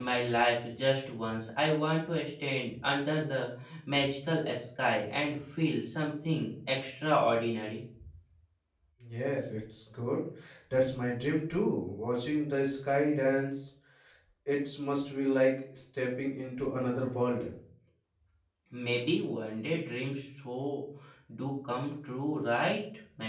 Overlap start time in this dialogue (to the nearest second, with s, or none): none